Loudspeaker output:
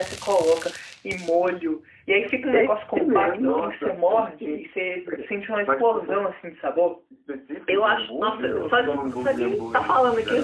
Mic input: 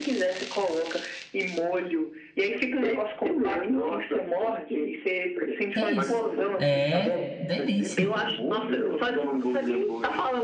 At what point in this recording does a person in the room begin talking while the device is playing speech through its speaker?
6 s

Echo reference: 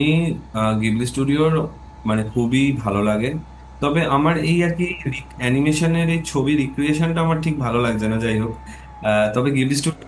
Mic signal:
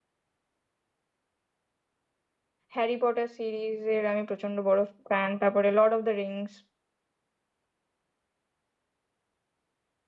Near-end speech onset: 3 s

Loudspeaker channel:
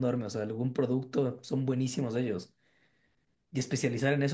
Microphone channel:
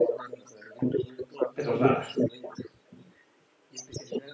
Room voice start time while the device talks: 2 s

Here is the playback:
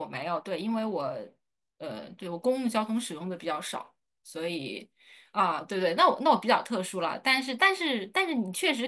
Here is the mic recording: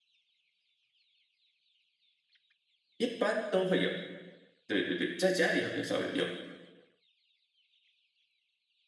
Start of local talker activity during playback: 3 s

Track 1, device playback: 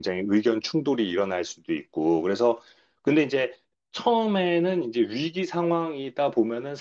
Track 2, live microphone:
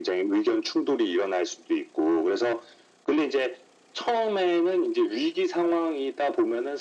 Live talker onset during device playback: none

